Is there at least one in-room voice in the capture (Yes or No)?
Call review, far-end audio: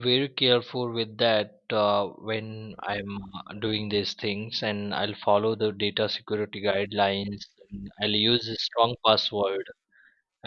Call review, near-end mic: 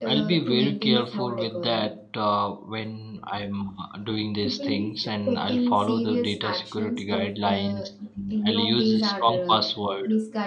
Yes